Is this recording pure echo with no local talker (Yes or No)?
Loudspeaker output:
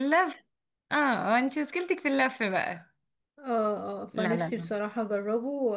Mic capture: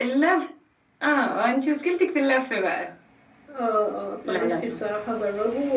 Yes